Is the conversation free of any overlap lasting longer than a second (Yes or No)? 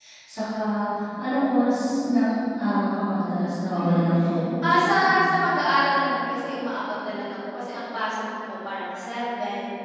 Yes